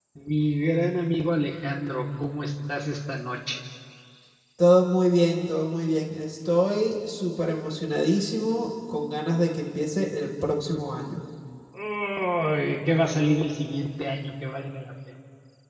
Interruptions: none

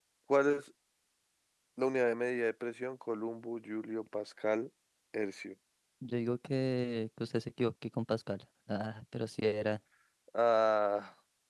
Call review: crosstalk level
none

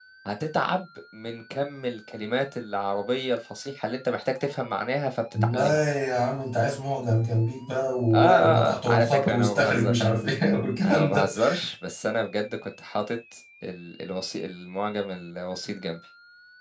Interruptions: present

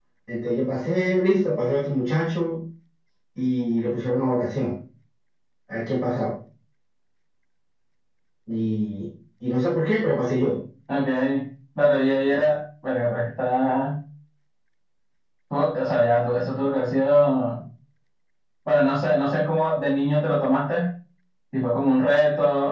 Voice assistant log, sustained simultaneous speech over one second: none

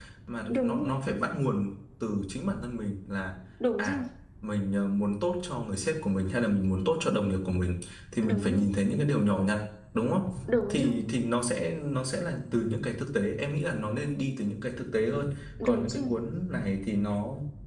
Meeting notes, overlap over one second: none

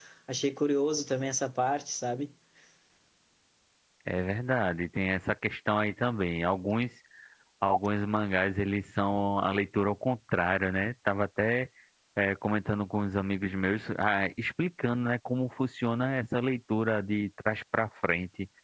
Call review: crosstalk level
none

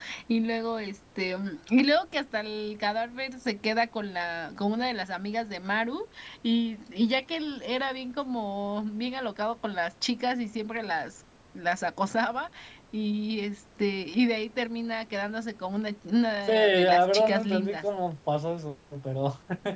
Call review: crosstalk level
present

